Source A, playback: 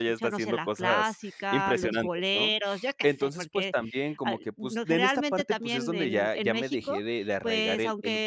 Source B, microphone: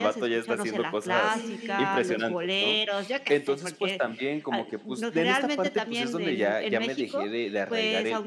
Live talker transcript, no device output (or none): Sí, sí.